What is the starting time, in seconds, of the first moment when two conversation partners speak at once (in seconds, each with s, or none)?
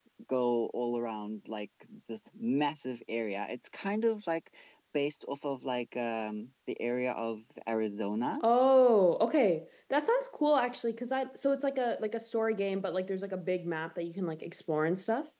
none